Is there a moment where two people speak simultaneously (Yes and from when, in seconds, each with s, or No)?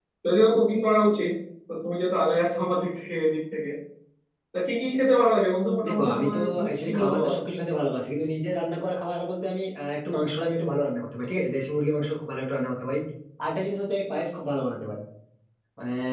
Yes, from 5.8 s